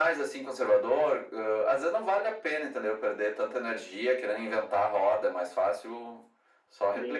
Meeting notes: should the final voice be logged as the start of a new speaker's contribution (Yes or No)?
Yes